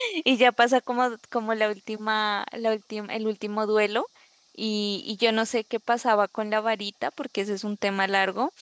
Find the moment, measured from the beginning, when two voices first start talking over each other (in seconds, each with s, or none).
none